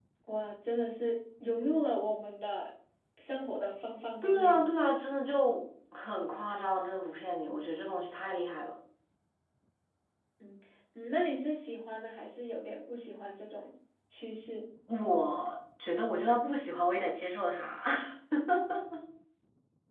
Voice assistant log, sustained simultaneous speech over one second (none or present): none